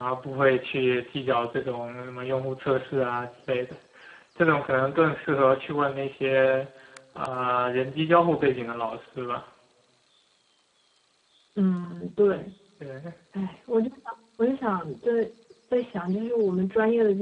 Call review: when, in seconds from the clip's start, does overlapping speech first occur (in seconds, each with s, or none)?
none